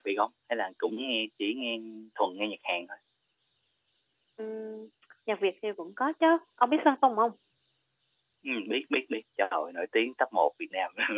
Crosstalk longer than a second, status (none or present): none